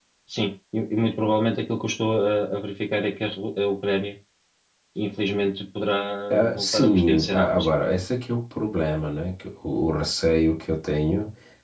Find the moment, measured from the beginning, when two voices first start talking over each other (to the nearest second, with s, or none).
6 s